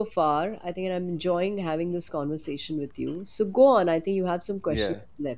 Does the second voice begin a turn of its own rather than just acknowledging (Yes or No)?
Yes